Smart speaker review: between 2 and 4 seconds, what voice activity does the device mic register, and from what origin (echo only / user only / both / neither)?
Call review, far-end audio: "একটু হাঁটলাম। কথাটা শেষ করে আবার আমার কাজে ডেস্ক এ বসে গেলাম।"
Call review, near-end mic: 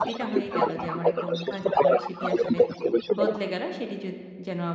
both